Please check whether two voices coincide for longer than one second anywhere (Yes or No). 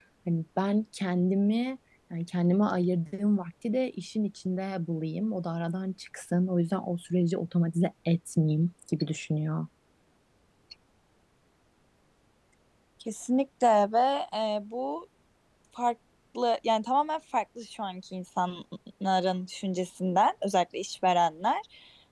No